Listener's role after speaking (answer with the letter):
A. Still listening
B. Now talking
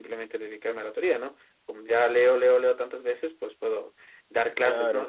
A